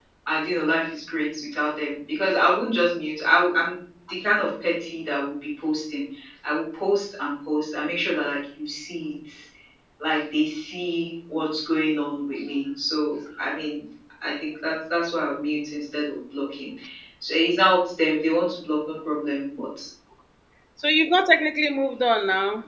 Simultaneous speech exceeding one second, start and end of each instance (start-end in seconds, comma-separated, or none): none